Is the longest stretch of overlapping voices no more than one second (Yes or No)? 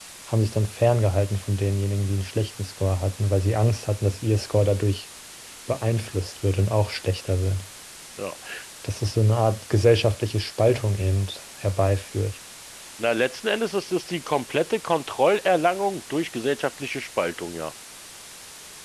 Yes